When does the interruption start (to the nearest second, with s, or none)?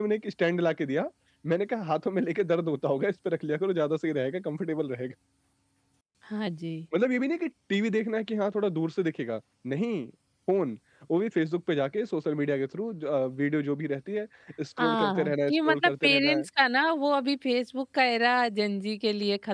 15 s